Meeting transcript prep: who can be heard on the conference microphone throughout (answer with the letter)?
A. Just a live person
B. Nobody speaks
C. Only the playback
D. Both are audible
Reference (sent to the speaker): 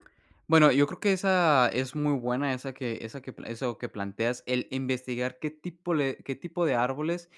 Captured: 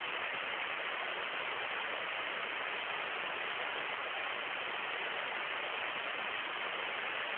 B